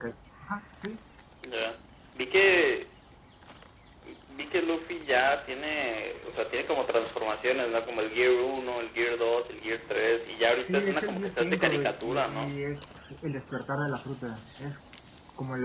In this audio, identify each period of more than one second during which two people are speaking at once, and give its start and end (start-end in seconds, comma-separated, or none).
10.6-12.6